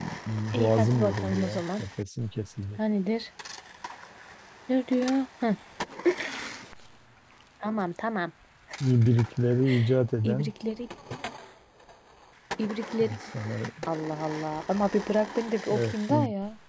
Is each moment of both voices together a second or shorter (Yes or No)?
No